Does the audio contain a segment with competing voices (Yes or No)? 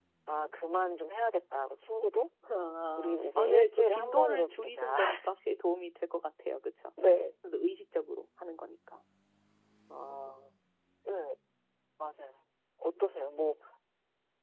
Yes